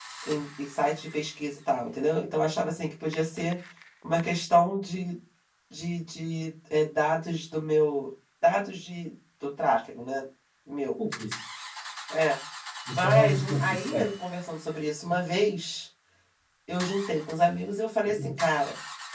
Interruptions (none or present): present